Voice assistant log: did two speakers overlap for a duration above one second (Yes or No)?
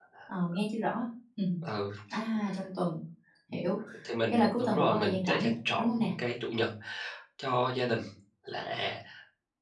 Yes